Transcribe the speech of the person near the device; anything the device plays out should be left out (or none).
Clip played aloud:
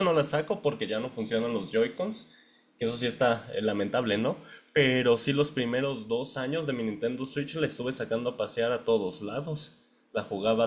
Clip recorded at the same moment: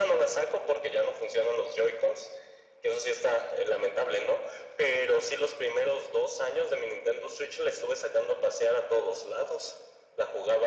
none